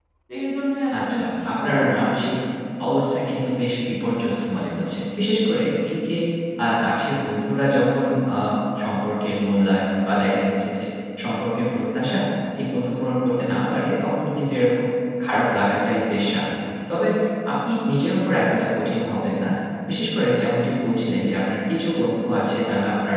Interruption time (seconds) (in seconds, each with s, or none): 1.0 s